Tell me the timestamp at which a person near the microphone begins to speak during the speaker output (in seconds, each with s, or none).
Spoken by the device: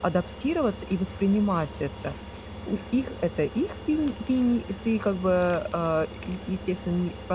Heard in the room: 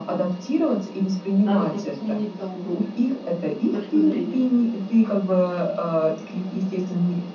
1.4 s